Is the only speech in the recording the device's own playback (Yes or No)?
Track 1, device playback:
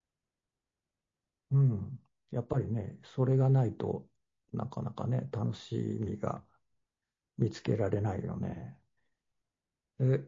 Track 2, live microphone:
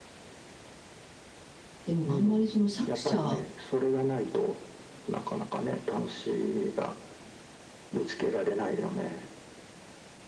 No